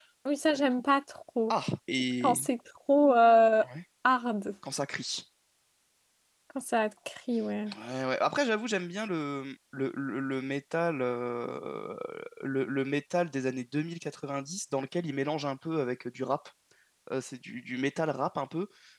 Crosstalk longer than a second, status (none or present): none